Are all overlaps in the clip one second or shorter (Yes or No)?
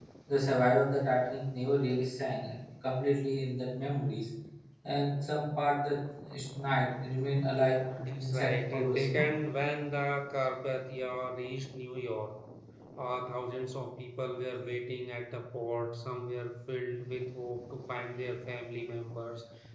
No